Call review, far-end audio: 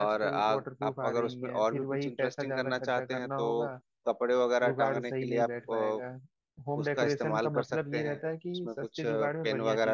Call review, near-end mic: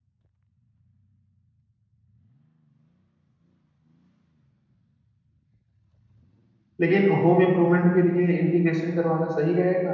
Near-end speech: present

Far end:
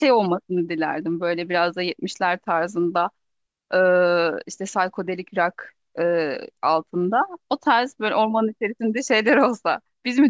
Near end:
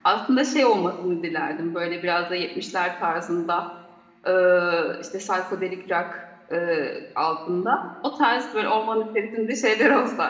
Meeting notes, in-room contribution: none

